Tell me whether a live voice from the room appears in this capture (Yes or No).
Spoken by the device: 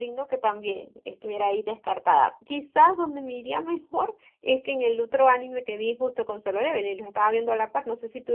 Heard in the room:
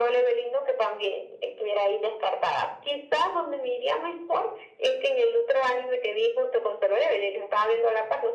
No